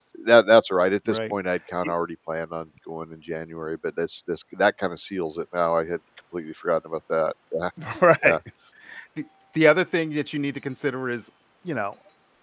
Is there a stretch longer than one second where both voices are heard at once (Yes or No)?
No